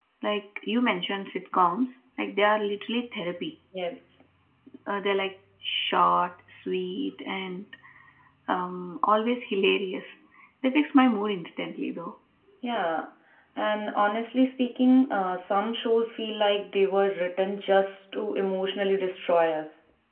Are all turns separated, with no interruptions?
Yes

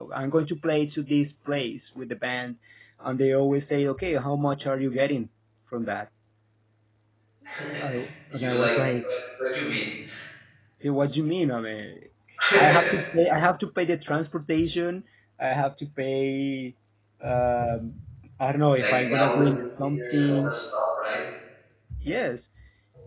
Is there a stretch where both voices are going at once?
Yes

